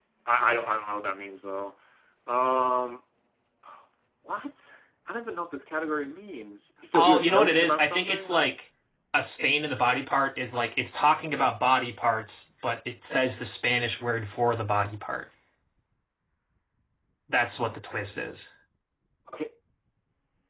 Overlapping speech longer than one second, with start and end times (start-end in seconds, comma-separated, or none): 6.9-8.4